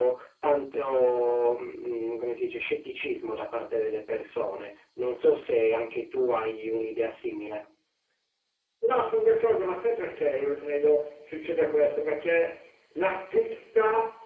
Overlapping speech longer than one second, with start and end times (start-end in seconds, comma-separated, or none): none